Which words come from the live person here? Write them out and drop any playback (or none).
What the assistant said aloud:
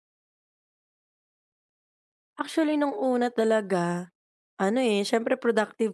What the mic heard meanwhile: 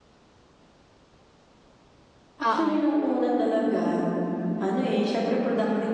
Oo.